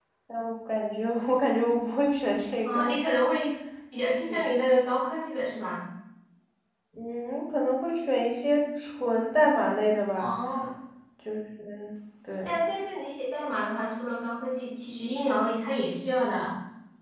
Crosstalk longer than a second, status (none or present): none